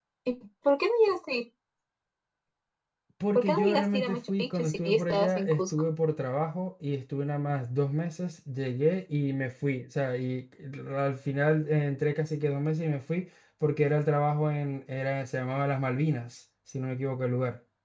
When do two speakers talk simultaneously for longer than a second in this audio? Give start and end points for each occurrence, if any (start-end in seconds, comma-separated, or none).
3.4-5.6